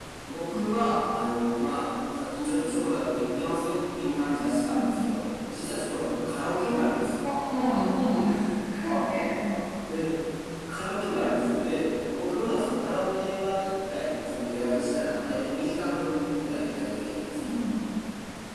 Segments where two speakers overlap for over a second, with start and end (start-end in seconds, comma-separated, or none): none